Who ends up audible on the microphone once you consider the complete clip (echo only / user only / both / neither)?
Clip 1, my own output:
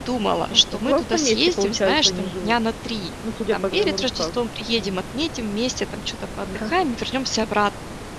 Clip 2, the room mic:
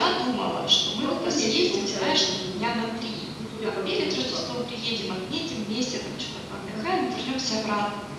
echo only